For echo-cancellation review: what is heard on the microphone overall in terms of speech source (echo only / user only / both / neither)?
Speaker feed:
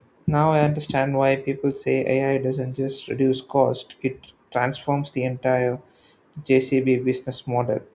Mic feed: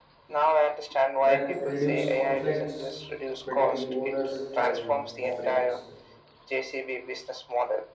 both